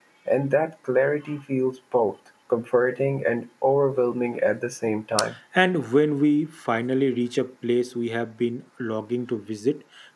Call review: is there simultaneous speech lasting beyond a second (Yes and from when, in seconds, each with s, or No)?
No